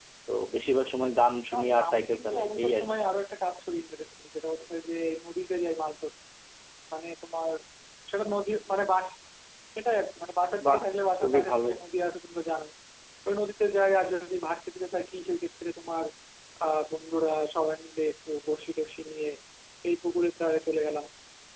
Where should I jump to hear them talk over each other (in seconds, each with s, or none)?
1.5 s